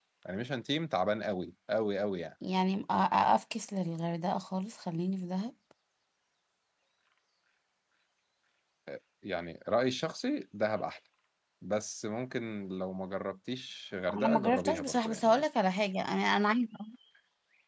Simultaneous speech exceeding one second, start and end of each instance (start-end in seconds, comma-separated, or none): 14.1-15.4